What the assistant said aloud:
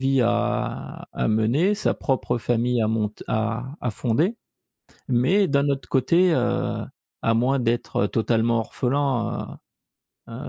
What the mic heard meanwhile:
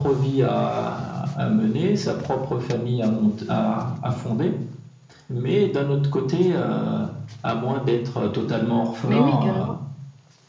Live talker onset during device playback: 9.1 s

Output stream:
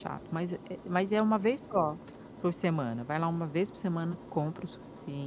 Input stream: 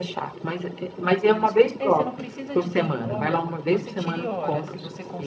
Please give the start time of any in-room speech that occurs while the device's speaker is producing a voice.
1.3 s

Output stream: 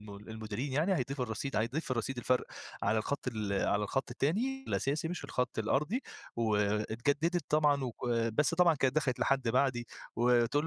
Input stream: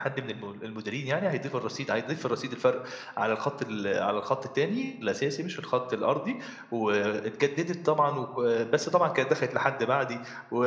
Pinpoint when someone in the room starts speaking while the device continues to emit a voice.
none

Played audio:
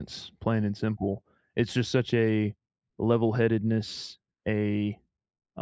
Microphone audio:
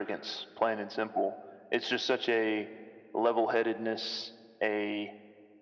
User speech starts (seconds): none

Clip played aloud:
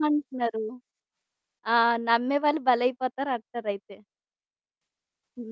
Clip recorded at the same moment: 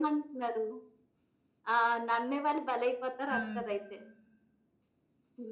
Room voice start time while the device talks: 3.3 s

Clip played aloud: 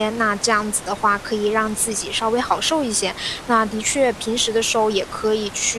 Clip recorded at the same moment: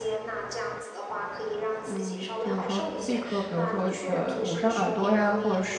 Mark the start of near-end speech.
1.9 s

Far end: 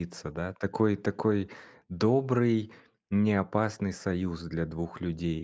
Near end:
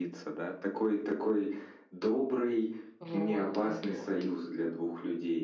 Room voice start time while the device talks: 3.0 s

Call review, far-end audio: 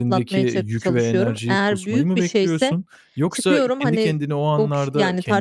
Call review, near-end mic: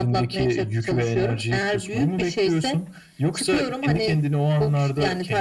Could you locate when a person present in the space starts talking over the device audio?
none

